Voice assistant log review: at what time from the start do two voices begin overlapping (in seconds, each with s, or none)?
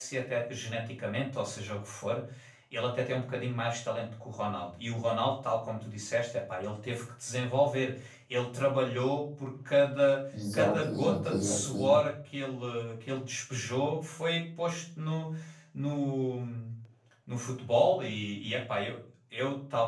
10.3 s